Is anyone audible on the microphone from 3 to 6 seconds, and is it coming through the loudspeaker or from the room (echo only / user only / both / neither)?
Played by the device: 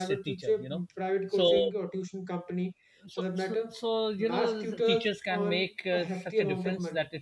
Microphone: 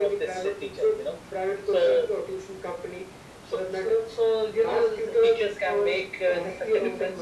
echo only